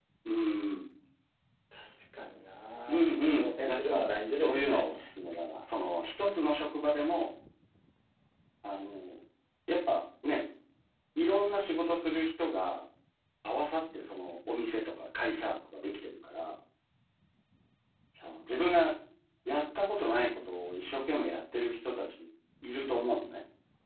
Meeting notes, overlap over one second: present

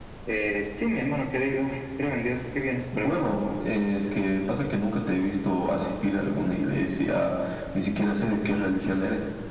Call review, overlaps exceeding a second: none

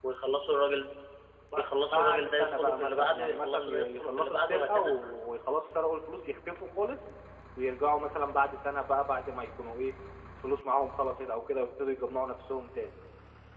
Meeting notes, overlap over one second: present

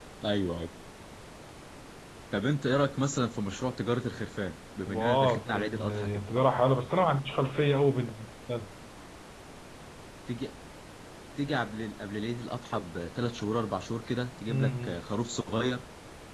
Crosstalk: present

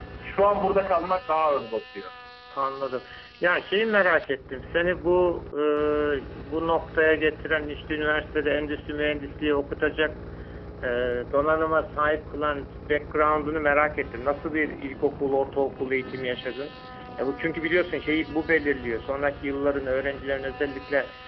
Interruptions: none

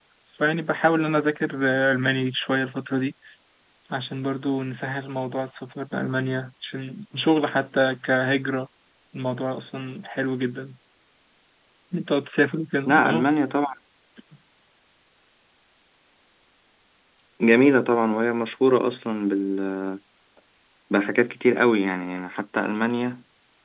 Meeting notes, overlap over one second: none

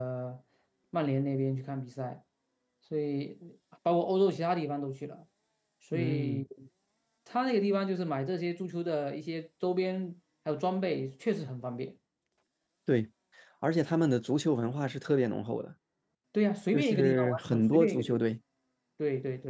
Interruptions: present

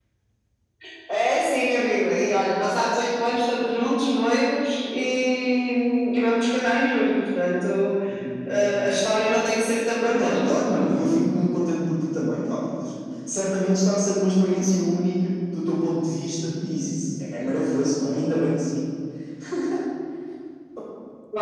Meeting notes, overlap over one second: none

